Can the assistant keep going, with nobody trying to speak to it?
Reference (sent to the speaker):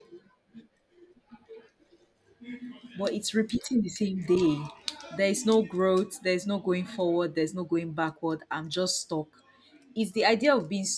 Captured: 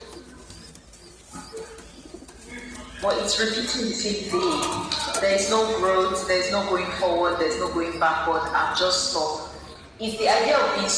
Yes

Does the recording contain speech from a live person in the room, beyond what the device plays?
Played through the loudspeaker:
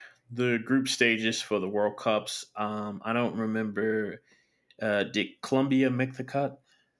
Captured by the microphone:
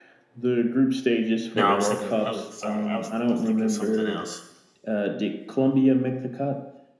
Yes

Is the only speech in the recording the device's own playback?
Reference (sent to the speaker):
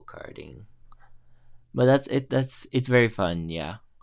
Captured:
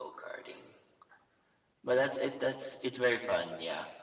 Yes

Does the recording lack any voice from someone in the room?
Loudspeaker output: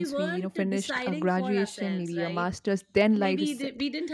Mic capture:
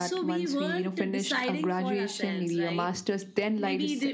Yes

